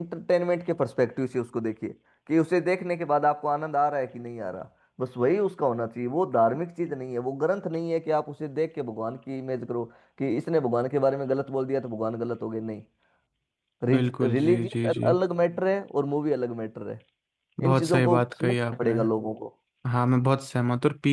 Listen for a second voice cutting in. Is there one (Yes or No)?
Yes